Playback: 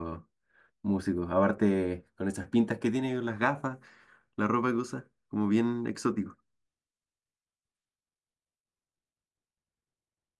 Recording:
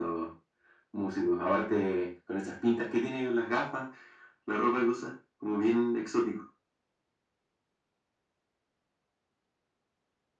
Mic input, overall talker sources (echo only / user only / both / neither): echo only